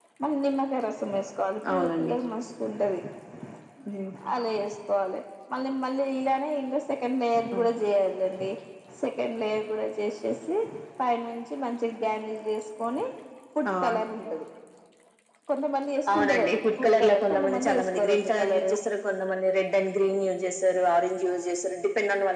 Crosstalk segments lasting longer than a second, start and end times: 16.1-18.7

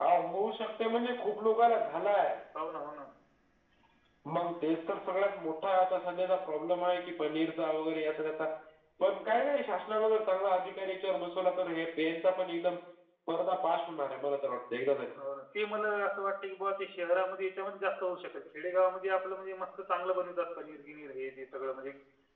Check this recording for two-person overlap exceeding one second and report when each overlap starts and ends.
none

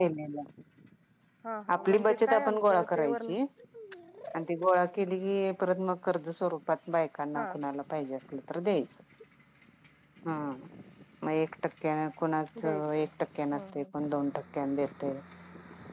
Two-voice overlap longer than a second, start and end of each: 1.7-3.3

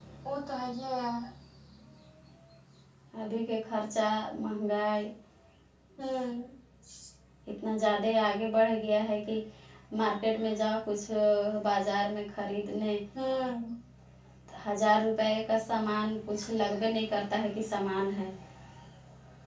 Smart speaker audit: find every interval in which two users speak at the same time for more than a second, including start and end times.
none

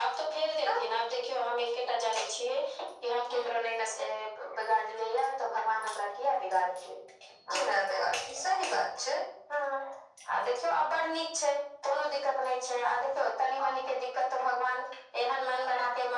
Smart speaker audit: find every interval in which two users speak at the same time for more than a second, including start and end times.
none

